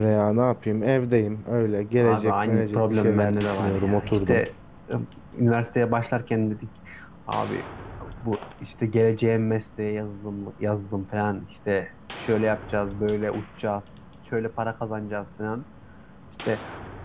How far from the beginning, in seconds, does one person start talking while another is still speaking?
2.0 s

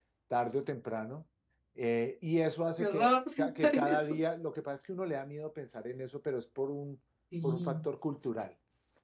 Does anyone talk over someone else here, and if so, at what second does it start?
2.8 s

